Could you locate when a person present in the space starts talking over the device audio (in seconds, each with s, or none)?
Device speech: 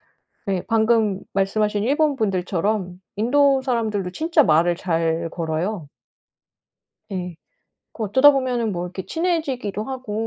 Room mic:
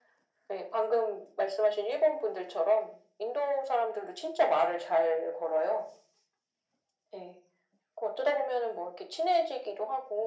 none